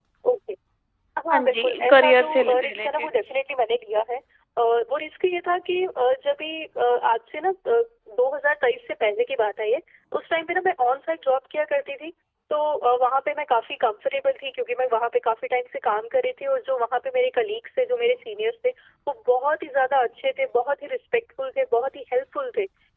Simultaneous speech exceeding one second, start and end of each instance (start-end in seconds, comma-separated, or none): 1.3-3.1